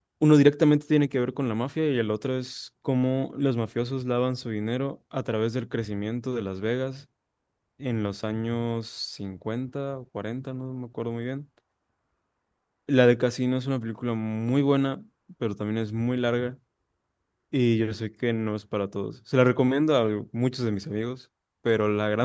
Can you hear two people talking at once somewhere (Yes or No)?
No